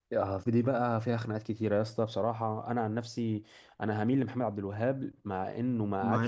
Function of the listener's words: taking over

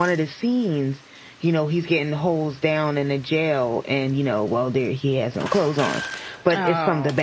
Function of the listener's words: listening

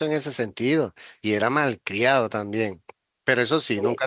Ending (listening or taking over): listening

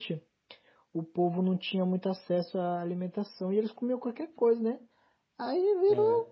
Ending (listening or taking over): listening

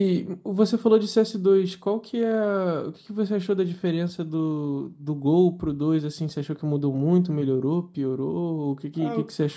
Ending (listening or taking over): taking over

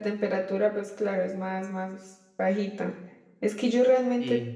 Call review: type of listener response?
listening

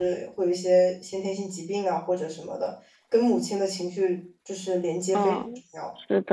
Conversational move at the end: taking over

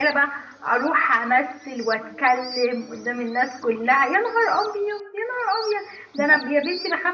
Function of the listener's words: listening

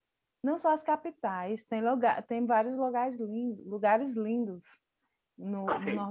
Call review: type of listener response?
taking over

